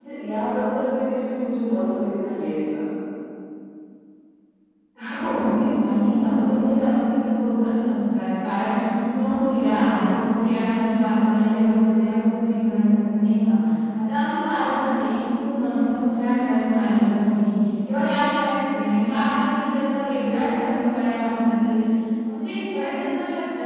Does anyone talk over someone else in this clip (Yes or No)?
No